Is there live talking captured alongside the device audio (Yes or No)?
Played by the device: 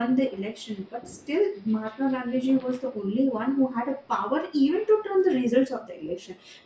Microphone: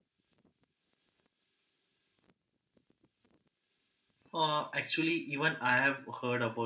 Yes